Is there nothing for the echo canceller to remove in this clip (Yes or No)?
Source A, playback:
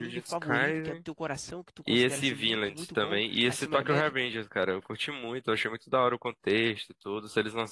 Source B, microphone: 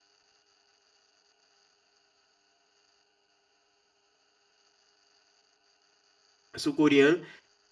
Yes